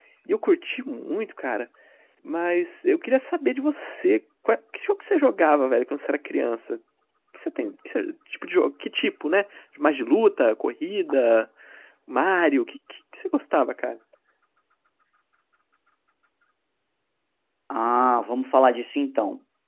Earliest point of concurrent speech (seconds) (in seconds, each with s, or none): none